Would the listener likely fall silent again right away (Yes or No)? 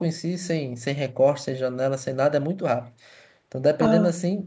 Yes